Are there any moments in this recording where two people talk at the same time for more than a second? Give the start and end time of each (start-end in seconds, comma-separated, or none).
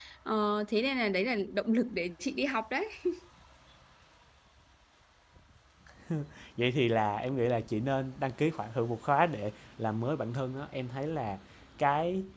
none